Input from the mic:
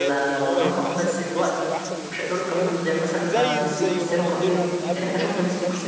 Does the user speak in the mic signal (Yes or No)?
Yes